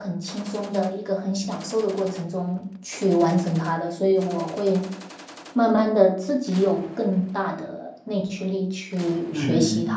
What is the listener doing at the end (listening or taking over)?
taking over